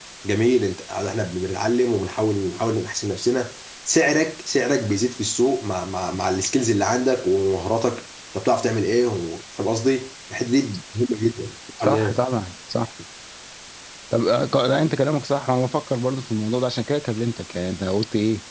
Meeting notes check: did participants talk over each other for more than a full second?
No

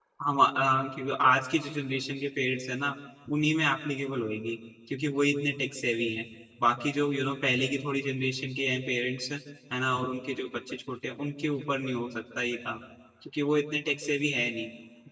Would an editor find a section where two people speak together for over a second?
No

